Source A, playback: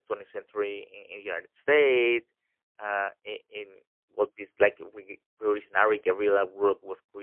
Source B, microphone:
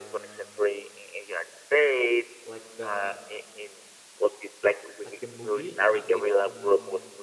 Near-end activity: present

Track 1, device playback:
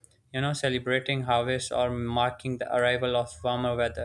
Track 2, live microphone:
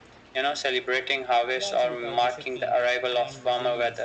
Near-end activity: present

